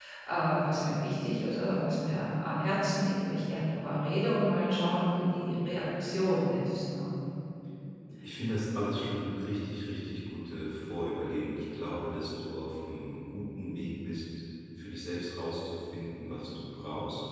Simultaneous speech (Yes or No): No